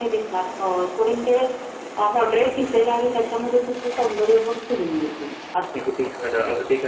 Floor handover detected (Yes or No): Yes